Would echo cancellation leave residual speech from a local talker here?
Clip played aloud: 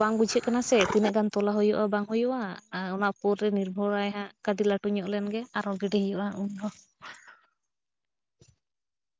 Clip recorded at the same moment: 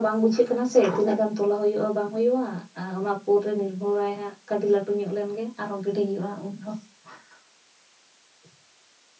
No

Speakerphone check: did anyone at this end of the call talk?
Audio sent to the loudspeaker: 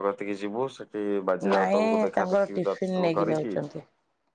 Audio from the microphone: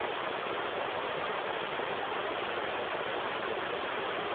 No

